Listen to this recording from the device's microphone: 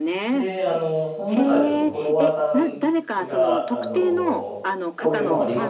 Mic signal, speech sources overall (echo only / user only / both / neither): both